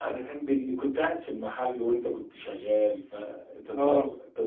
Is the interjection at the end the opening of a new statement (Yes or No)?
No